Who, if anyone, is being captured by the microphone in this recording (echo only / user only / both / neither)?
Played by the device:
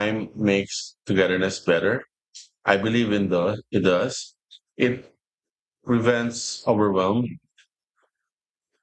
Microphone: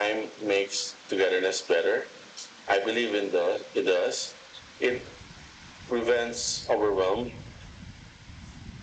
echo only